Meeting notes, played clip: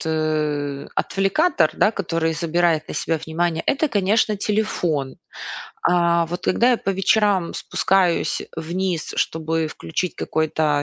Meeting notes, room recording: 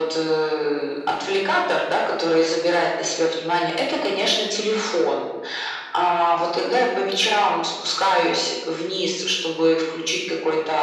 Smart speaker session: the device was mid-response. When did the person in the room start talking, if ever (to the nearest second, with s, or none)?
none